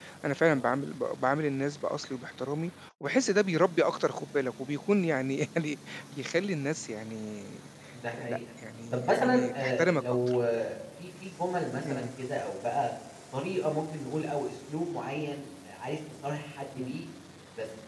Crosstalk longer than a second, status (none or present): present